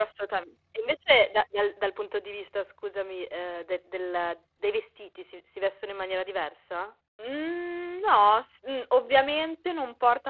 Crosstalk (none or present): none